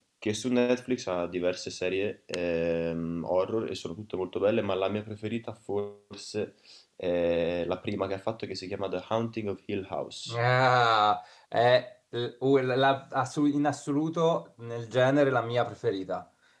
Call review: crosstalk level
none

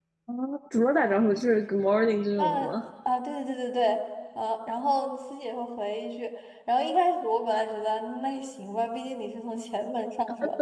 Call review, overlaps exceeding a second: none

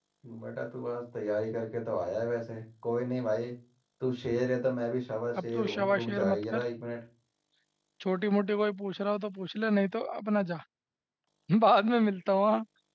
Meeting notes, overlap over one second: present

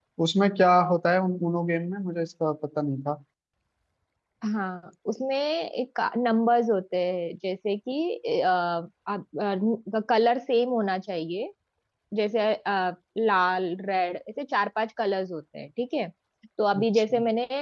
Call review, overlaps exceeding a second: none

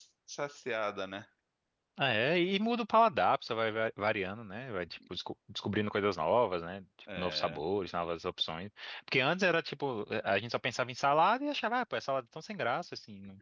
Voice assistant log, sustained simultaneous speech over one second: none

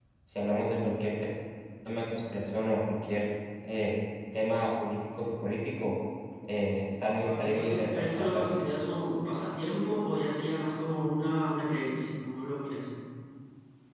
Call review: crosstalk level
present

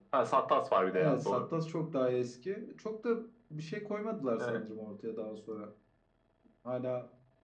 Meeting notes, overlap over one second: none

